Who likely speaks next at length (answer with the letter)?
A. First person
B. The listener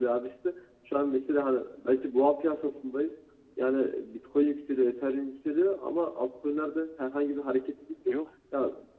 A